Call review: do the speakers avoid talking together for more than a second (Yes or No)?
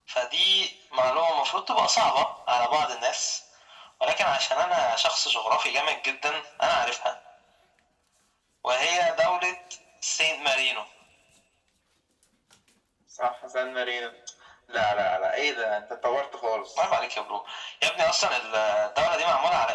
Yes